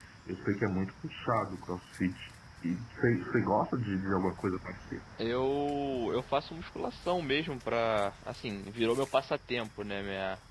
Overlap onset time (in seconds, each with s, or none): none